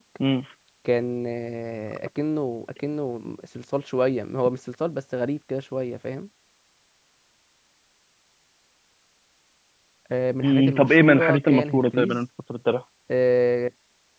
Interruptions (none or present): present